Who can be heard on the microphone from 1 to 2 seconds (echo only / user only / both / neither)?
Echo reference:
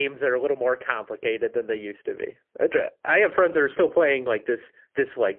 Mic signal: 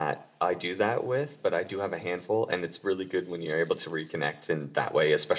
user only